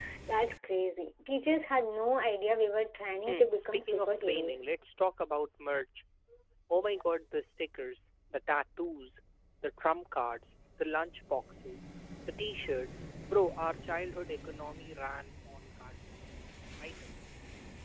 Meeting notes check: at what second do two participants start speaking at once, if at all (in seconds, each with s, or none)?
3.3 s